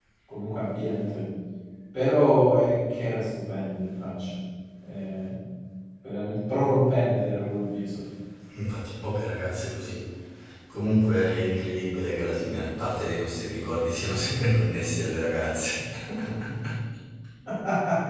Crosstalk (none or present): none